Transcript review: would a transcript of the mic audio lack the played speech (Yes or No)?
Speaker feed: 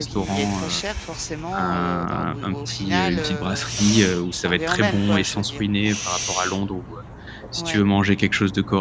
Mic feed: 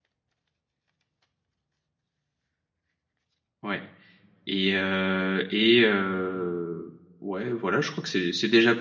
Yes